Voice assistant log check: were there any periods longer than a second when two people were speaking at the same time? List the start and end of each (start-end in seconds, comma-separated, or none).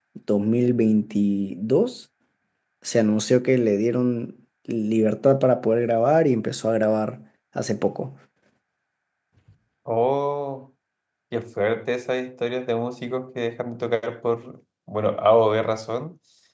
none